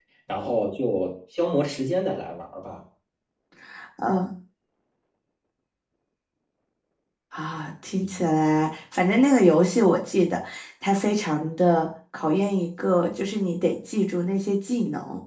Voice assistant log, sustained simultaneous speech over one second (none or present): none